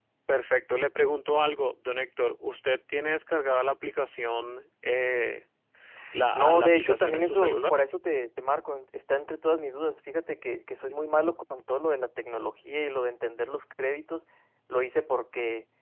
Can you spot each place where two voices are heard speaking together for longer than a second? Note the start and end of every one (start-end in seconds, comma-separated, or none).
6.3-7.8